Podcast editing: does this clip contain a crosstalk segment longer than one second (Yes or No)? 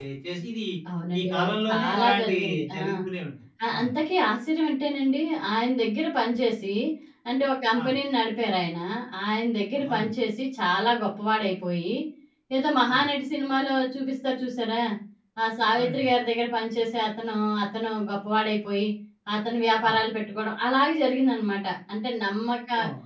Yes